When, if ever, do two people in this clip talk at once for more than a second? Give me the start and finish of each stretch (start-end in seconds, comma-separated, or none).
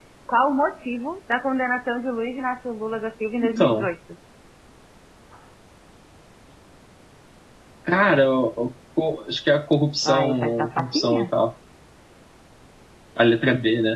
10.1-11.3